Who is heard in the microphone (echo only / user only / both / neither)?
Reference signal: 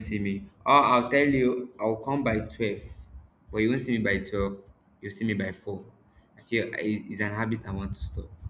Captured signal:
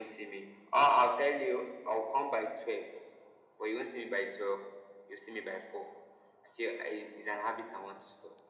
echo only